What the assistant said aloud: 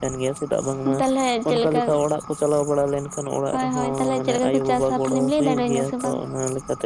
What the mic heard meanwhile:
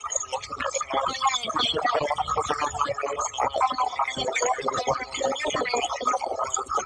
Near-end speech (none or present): none